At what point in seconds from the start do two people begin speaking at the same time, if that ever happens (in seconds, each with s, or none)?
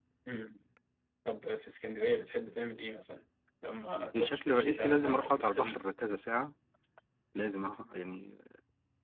3.9 s